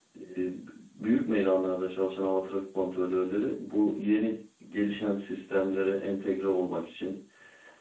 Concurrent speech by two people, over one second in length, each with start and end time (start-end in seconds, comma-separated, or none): none